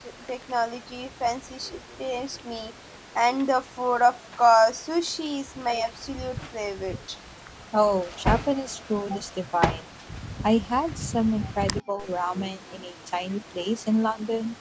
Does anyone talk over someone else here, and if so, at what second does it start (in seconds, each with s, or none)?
none